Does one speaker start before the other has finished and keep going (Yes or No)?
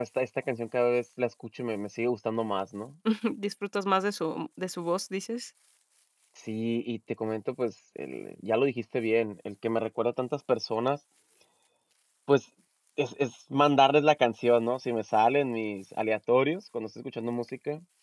No